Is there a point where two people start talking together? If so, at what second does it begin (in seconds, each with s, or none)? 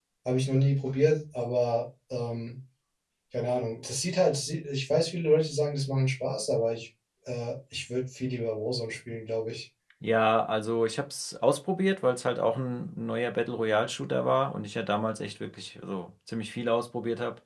none